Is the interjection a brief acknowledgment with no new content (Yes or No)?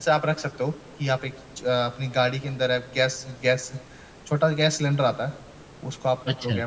Yes